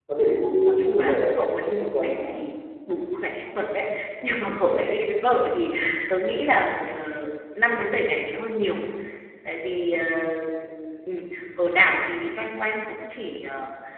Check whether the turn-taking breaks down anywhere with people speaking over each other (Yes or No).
Yes